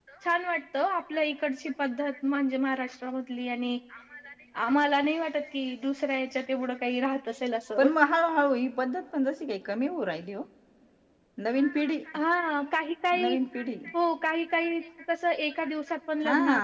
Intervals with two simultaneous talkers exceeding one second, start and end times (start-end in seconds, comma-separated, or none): none